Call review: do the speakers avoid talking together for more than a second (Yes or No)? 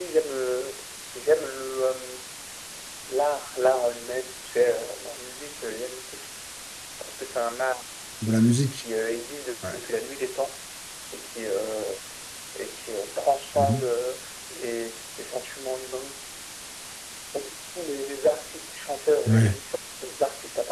Yes